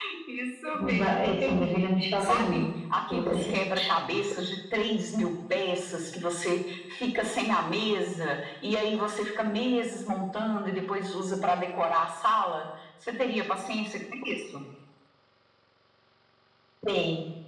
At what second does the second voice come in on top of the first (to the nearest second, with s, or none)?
1 s